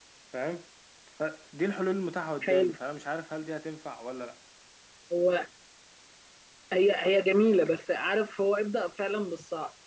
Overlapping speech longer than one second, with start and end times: none

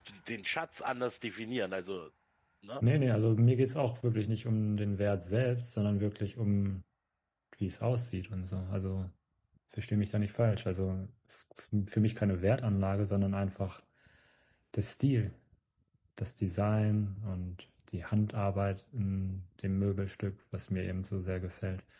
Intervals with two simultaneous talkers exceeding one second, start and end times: none

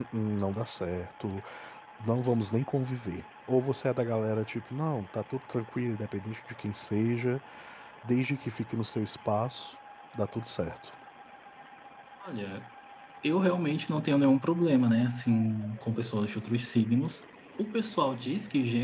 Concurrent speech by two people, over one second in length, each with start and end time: none

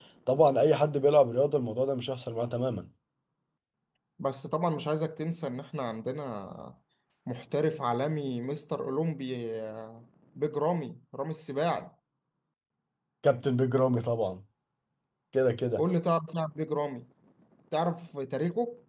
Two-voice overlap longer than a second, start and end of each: none

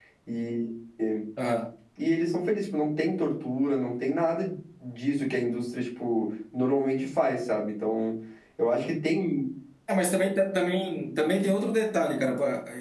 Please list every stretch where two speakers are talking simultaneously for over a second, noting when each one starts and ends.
none

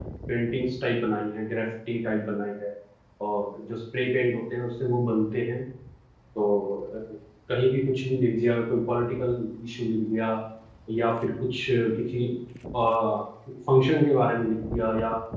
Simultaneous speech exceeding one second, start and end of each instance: none

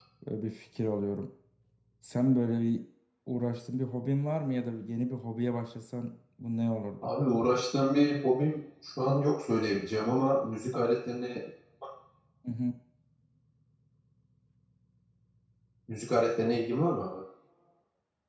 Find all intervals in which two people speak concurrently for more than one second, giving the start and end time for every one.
none

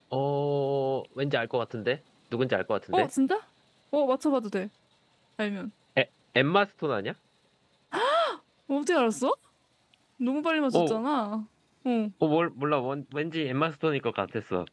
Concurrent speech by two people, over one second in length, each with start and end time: none

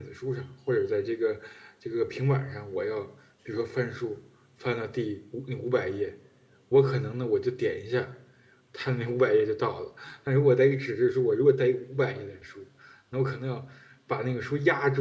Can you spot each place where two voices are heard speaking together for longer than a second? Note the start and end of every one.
none

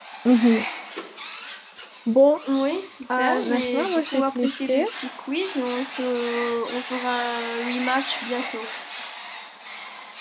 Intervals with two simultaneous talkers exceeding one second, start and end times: 3.2-4.8

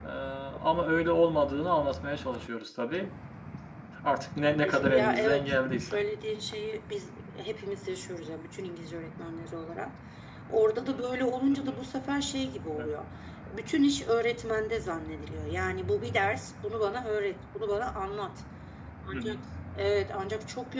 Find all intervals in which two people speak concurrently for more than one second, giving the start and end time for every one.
4.6-6.0

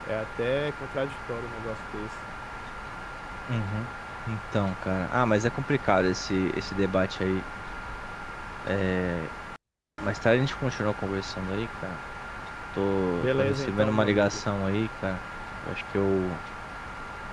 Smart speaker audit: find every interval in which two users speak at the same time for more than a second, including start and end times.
13.2-14.4

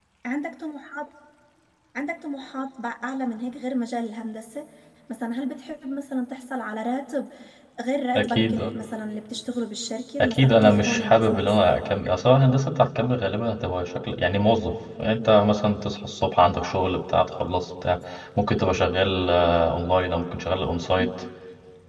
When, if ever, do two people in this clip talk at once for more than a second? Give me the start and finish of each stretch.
10.2-11.6

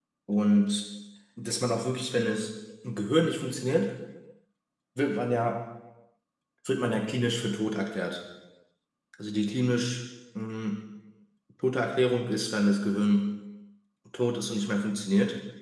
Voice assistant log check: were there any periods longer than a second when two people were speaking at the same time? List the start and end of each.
none

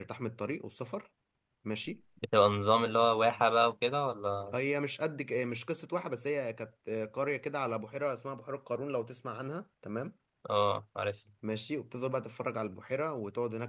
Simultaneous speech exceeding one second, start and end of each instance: none

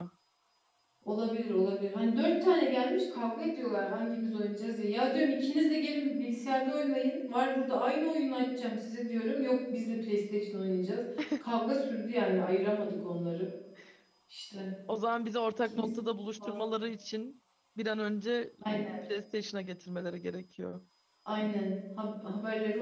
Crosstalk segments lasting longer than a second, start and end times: none

